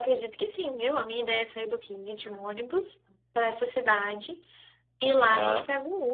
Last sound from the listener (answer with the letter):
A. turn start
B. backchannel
B